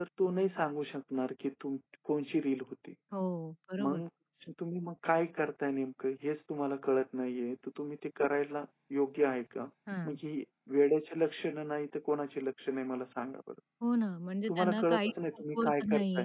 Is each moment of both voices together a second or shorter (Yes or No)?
No